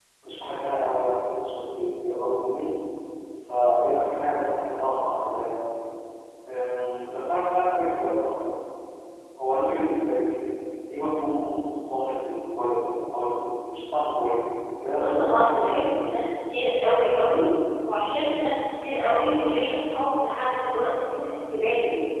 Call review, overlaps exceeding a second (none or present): present